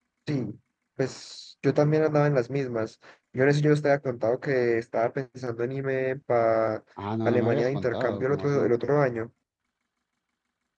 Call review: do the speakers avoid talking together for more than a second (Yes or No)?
No